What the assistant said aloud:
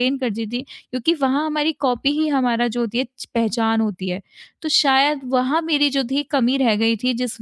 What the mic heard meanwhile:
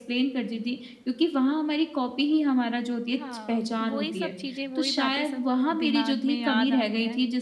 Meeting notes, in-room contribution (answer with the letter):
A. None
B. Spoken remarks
B